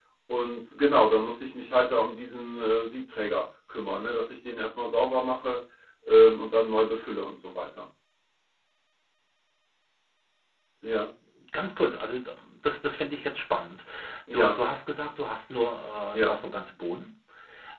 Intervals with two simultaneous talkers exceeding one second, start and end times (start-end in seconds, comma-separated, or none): none